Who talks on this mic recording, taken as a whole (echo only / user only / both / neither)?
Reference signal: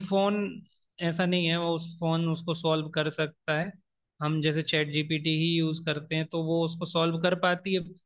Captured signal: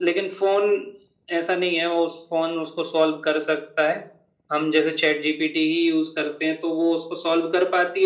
echo only